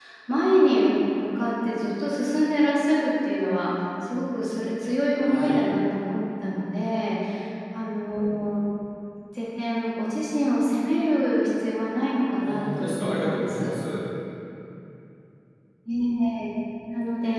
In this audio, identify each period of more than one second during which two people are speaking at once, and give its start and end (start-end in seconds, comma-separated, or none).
12.4-13.7